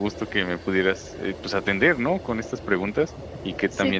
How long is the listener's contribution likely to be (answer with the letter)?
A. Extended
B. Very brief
B